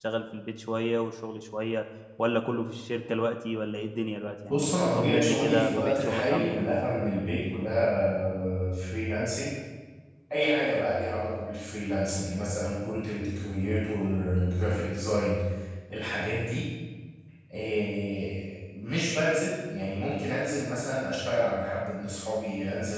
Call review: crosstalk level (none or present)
present